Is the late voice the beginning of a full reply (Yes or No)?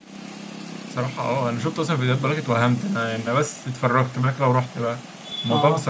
No